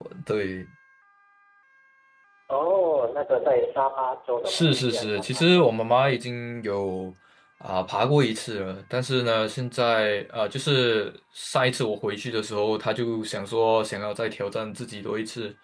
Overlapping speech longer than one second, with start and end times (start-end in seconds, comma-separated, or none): 4.5-6.2